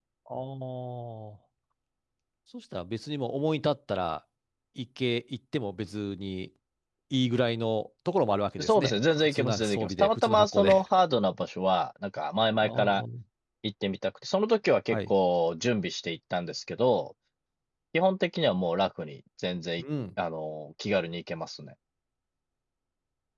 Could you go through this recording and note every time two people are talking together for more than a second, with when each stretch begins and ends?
8.6-10.8

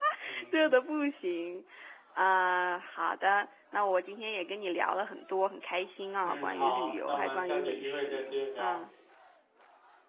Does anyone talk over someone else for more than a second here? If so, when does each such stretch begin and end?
6.2-8.8

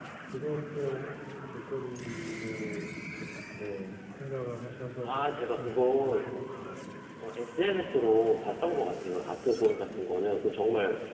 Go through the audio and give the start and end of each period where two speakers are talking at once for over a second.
5.0-6.2

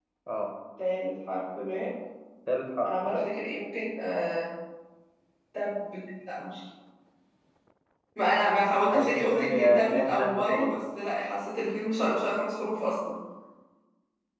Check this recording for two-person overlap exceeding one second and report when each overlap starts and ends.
8.9-10.8

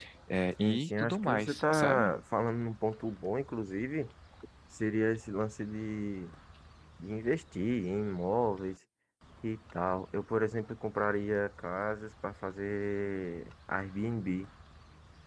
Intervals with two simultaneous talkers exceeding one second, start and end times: 0.6-2.1

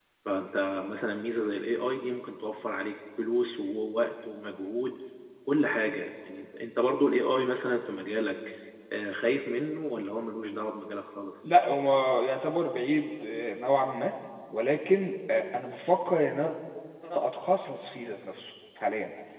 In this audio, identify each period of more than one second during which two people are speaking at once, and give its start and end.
none

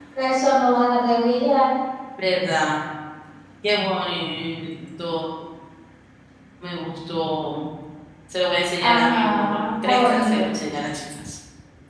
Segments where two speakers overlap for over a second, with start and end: 8.8-10.5

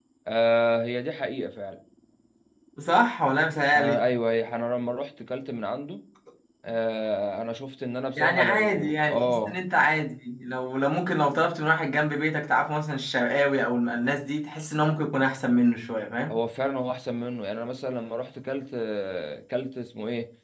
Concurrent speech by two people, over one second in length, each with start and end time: 8.2-9.6

